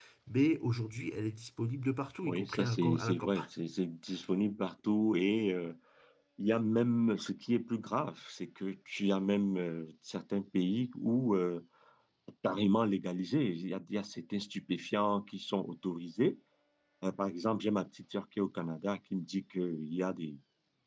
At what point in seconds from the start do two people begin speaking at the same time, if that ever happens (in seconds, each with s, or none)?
2.2 s